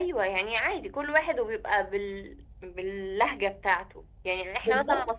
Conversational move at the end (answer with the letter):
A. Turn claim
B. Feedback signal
B